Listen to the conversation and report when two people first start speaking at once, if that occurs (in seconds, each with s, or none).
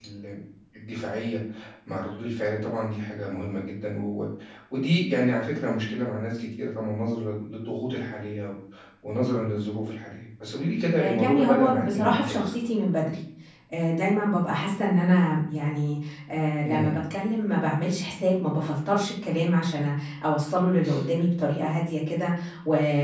11.0 s